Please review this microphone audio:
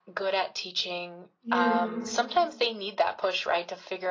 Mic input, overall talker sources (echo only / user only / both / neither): both